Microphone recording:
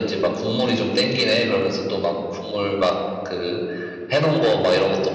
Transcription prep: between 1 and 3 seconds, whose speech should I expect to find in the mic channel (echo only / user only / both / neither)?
echo only